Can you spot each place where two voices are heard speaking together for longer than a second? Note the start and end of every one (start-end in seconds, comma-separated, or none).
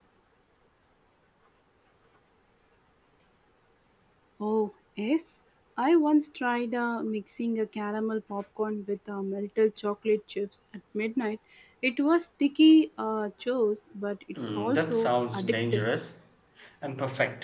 14.6-15.8